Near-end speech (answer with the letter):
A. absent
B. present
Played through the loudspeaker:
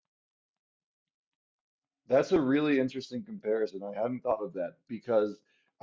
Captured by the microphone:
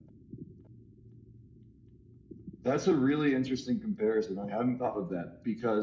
A